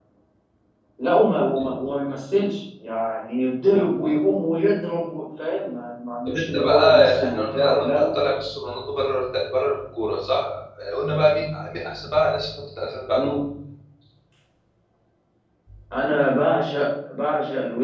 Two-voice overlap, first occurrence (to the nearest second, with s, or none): 6 s